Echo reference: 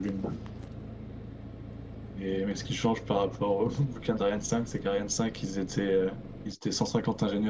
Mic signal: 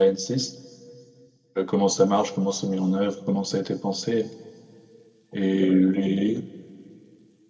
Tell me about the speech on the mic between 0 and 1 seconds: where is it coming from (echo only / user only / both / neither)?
user only